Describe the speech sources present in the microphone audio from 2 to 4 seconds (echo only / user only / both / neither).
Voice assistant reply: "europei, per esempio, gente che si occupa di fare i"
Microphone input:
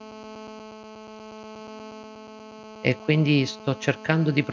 user only